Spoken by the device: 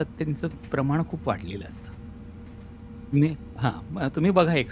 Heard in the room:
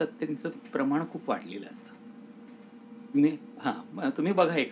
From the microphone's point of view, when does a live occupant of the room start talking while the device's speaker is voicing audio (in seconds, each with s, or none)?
none